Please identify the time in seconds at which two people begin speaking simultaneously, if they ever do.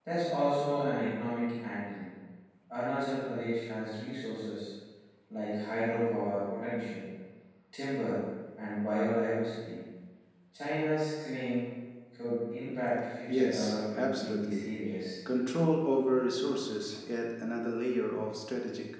13.3 s

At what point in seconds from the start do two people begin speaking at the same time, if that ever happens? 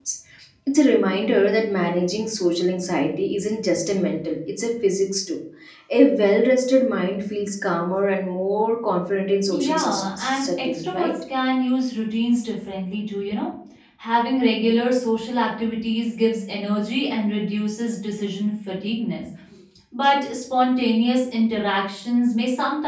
9.5 s

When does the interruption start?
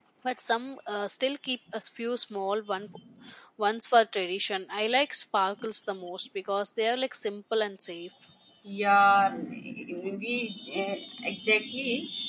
none

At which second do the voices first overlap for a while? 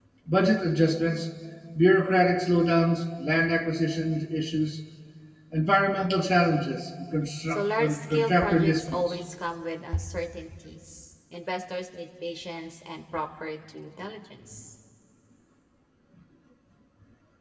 7.5 s

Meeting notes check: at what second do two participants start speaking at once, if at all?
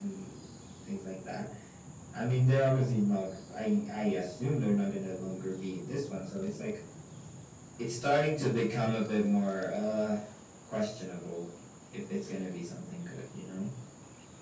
none

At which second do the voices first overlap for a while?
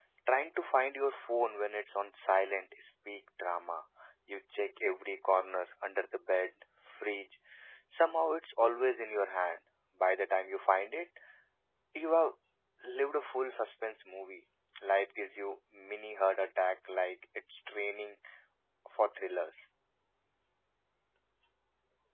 none

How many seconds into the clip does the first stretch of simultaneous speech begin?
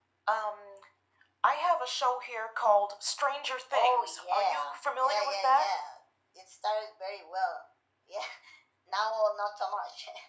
3.7 s

